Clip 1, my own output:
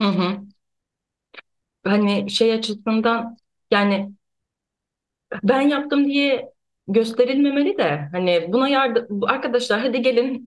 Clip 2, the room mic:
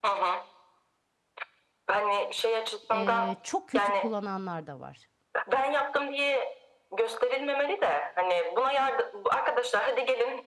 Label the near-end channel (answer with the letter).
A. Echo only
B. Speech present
B